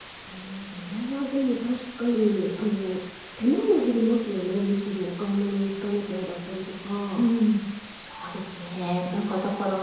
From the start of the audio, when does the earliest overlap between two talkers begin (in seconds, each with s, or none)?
none